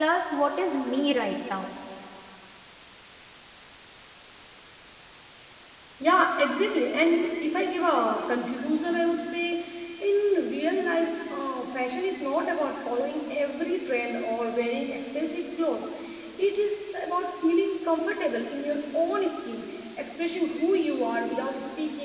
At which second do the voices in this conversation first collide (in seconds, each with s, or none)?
none